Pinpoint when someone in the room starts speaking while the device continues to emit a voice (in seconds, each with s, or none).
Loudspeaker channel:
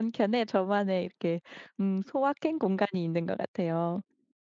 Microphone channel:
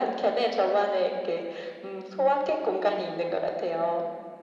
none